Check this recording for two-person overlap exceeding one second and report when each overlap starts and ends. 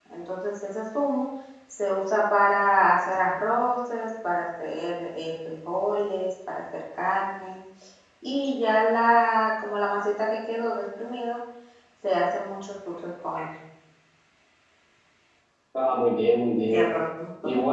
none

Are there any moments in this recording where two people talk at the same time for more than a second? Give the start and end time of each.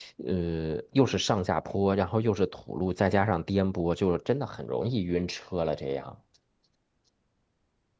none

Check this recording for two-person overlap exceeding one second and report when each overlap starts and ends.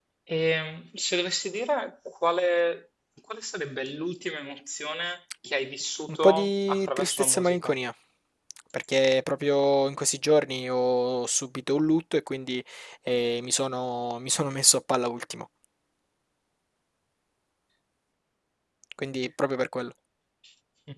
6.1-7.7

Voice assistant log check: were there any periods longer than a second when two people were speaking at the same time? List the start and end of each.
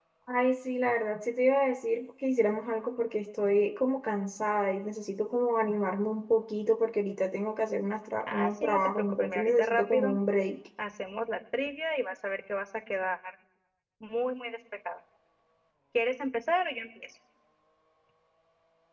8.2-10.1

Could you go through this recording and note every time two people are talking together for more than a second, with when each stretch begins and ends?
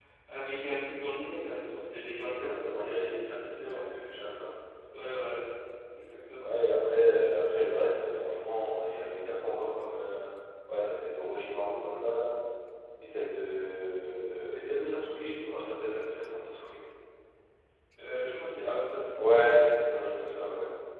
2.2-3.9

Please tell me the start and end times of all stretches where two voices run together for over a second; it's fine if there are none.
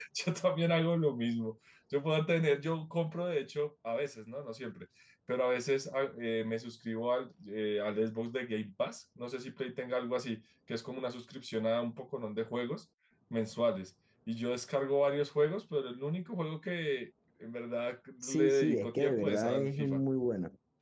18.2-20.0

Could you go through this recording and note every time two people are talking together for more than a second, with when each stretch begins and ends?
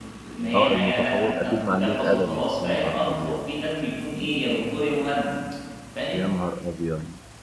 0.6-3.5

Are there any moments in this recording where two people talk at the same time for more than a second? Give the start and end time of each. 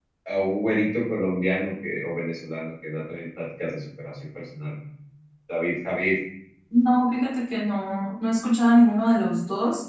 none

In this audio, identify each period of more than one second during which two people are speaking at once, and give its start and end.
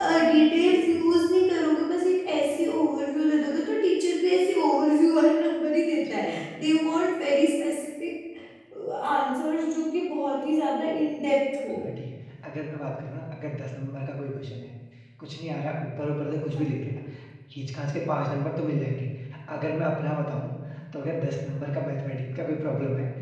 none

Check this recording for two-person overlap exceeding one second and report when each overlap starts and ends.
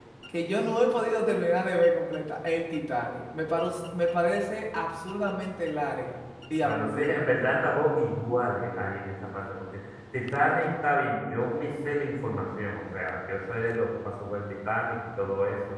6.6-7.8

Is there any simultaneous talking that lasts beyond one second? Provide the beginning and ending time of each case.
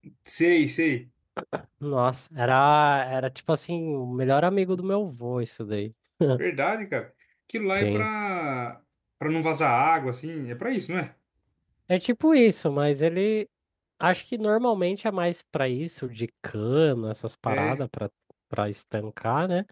none

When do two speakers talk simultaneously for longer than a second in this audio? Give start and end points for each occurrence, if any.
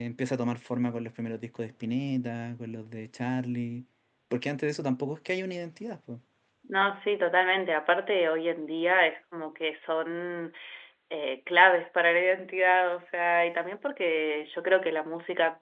none

